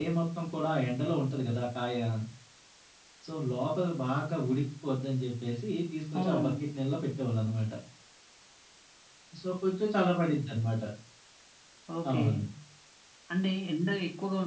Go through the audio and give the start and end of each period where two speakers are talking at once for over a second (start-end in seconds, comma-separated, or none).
none